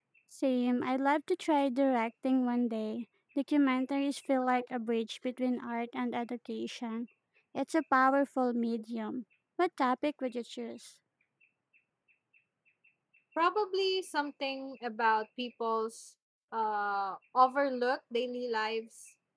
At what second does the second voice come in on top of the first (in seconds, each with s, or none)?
none